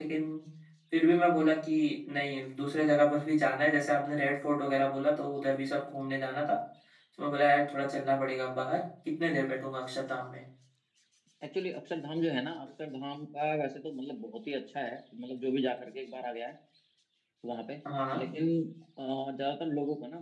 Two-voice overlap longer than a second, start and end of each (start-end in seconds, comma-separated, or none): none